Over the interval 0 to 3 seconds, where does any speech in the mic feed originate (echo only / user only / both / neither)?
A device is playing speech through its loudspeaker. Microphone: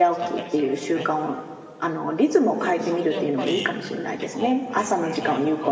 both